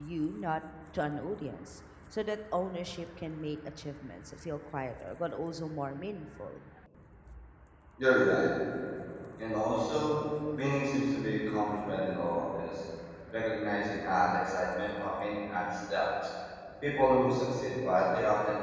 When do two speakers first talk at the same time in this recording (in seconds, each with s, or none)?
none